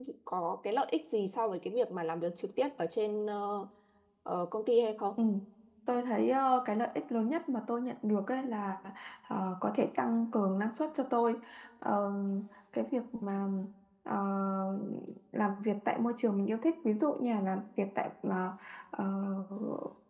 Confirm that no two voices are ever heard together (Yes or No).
Yes